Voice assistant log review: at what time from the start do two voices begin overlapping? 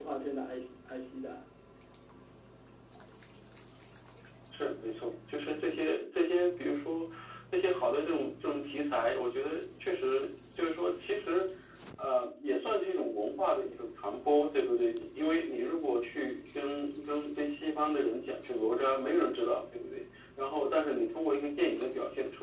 none

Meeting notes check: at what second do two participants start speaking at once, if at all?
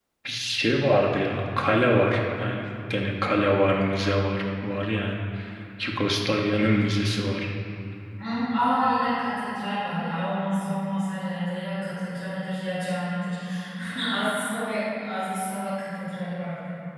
none

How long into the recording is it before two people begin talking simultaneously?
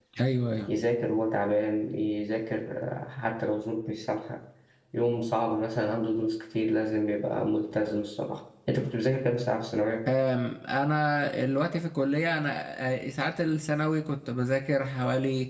none

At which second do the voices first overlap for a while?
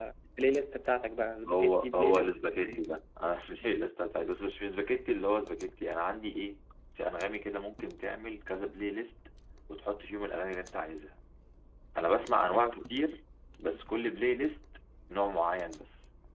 1.5 s

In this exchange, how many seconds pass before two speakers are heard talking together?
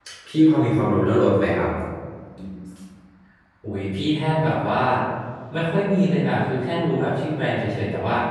none

